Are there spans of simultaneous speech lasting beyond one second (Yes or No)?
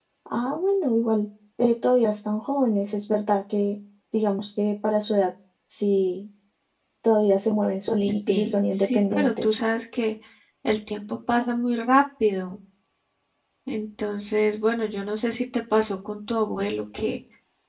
Yes